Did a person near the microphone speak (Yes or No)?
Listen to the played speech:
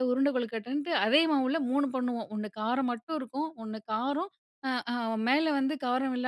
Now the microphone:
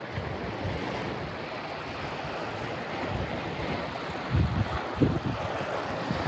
No